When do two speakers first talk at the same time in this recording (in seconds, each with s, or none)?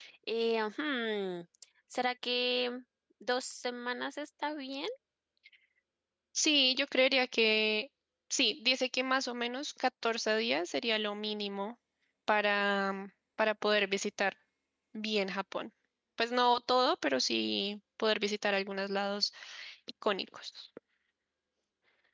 none